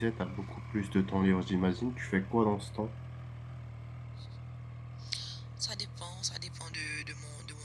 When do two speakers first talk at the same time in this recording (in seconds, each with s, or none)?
none